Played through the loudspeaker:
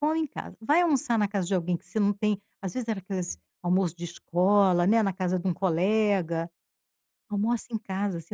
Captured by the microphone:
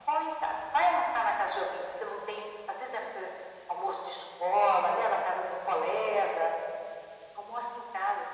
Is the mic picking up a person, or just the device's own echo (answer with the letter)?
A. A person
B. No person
B